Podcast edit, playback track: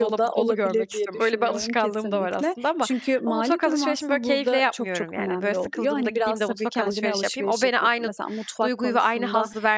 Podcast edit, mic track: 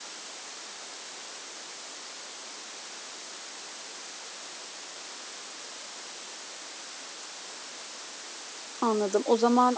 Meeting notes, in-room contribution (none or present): present